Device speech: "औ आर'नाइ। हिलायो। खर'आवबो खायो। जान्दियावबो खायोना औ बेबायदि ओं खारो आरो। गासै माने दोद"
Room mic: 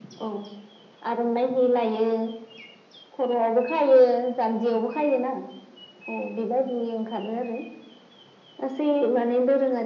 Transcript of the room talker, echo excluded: none

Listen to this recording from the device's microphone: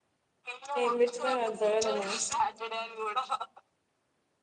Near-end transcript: ఏం పెట్టినవు అంతగదము

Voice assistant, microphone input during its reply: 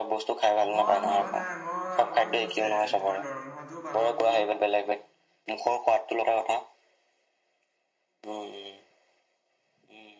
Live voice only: মই ভাবা নাই মই অকমান মোৰ তোমাৰ দৰমহাটোও বাঢ়ক বোলো

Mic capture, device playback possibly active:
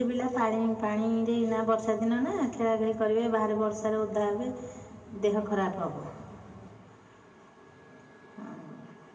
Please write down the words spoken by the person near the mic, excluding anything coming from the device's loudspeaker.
none

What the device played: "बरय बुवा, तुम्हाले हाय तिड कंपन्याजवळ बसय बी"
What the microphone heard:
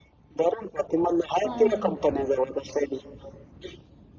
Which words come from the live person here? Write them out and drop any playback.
हम्म

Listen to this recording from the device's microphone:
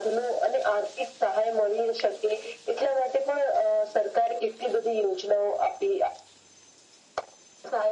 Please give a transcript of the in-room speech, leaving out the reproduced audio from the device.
none

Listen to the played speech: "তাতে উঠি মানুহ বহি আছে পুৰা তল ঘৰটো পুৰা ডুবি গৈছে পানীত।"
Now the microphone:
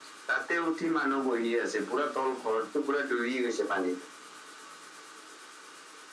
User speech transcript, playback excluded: none

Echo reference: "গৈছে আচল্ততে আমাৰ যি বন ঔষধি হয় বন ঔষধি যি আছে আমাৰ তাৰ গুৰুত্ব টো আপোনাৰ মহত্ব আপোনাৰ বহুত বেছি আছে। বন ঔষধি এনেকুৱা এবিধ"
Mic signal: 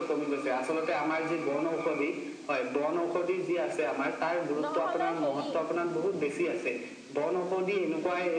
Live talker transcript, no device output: নহ'লে হেৰি

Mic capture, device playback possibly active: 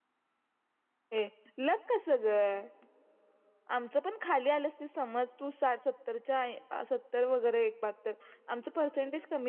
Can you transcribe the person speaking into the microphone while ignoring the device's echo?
none

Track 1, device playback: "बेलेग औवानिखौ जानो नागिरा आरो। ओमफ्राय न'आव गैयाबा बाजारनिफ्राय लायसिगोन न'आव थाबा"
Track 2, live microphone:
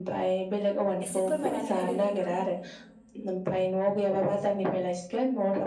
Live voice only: एसे फोरमायनानै होदो नोंथां

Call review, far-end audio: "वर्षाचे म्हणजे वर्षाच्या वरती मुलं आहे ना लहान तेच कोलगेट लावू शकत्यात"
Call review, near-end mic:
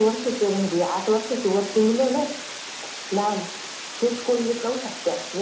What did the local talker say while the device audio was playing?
none

